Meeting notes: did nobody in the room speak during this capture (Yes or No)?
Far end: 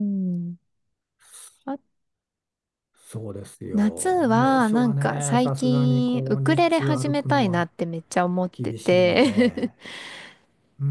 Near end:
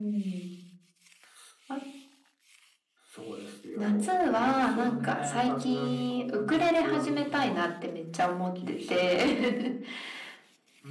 Yes